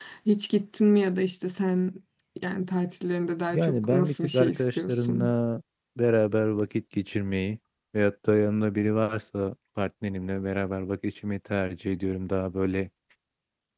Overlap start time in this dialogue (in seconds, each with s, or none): 3.5 s